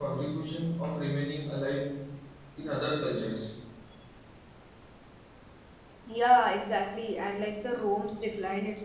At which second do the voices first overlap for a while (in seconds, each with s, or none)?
none